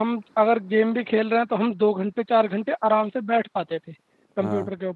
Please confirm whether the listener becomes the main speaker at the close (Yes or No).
No